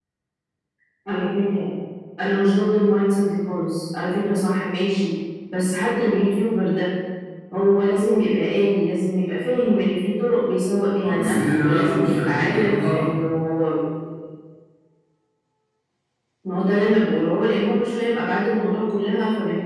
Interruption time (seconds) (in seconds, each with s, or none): 11.0 s